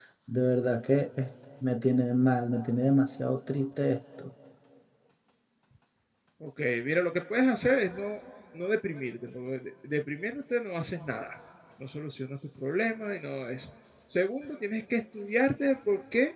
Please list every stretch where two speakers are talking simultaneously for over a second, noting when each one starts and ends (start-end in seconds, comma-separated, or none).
none